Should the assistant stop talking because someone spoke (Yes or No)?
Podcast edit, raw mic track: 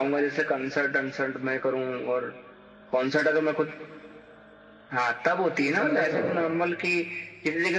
Yes